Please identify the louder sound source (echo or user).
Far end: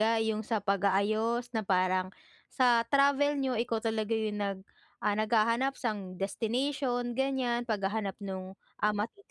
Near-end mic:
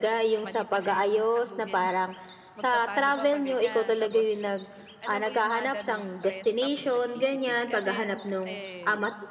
echo